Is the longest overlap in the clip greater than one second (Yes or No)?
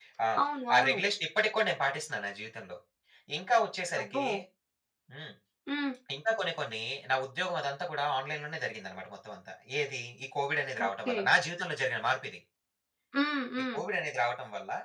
No